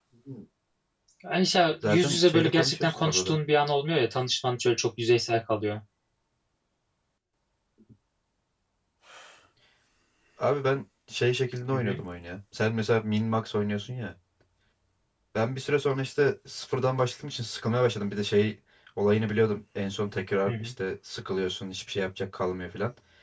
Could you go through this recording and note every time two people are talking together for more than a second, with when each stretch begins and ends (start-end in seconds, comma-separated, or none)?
1.8-3.4